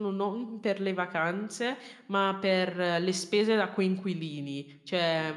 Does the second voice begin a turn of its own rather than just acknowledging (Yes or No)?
No